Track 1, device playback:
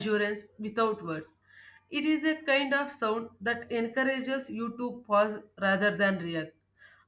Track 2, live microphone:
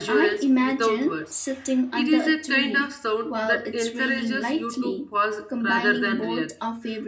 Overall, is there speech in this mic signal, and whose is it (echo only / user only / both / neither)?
both